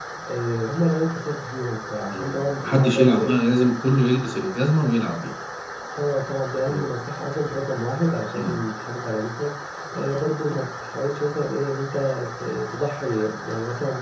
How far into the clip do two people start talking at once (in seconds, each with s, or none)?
2.1 s